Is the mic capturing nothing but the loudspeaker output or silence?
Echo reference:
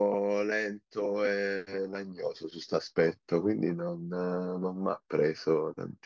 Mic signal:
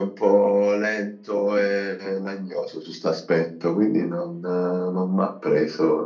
Yes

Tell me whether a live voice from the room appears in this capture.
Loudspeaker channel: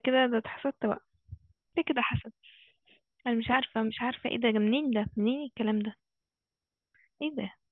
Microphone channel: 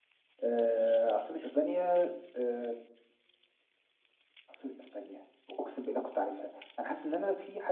Yes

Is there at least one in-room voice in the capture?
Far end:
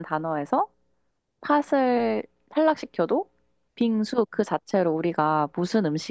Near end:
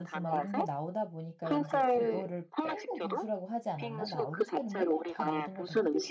Yes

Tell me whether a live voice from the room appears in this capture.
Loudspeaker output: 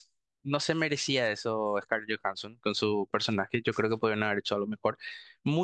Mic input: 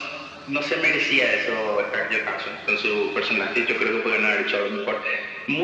No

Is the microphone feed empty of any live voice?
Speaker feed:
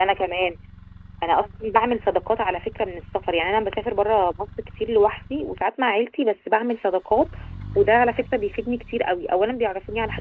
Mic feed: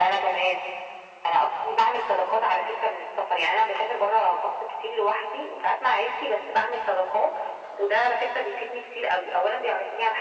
Yes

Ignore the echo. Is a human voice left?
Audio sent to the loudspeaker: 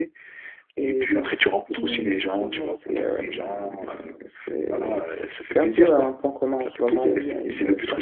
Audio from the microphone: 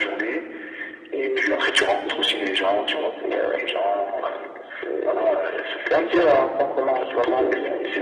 No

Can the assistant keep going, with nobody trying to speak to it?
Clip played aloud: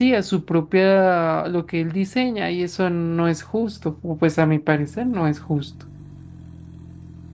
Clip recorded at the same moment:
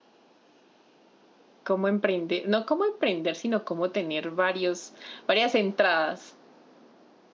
No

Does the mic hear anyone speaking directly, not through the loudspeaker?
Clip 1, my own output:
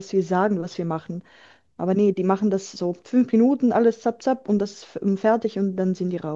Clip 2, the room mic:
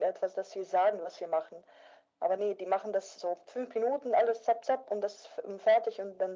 No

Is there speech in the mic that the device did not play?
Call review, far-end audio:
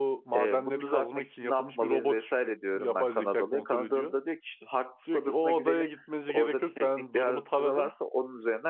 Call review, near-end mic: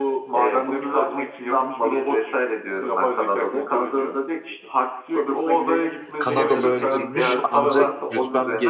Yes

